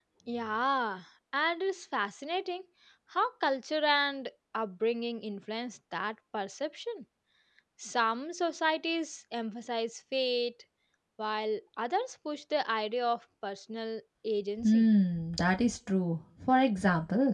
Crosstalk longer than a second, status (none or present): none